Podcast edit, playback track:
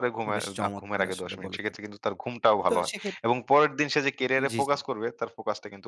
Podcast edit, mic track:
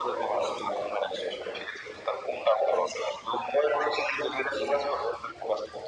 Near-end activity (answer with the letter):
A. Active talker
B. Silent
B